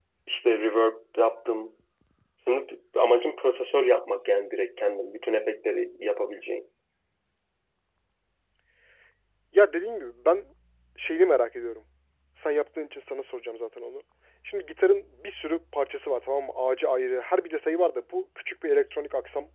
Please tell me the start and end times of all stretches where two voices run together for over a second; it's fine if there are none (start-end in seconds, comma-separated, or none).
none